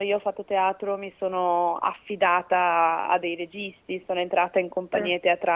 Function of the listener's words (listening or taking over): listening